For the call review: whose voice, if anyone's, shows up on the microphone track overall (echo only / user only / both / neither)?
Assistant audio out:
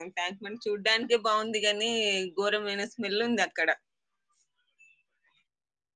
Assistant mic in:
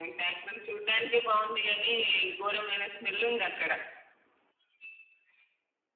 echo only